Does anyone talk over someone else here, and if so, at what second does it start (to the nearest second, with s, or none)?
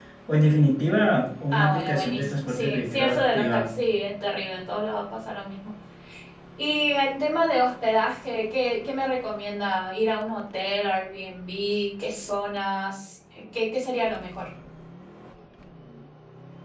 2 s